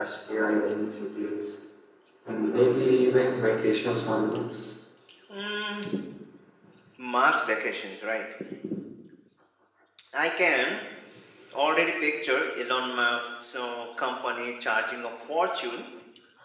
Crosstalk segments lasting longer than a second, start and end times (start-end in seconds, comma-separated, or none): none